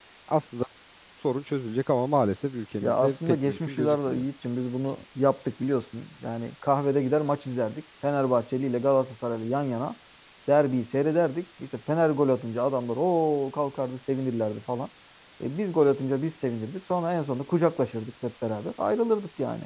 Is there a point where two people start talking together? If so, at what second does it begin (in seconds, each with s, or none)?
2.8 s